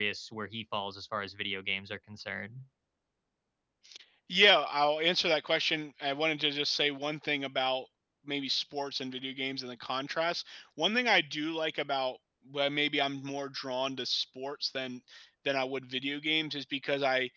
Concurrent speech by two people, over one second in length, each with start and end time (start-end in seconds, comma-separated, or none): none